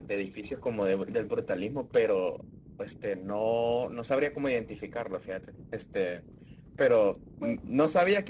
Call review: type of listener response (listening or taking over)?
listening